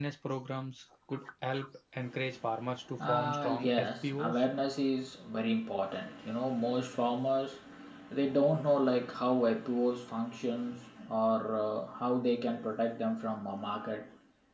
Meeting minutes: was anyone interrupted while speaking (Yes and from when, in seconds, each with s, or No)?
Yes, from 3.0 s